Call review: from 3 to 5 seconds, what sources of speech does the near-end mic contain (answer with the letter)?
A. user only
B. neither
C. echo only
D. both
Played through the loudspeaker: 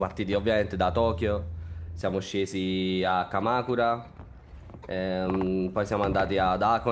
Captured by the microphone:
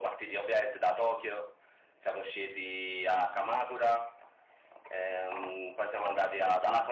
C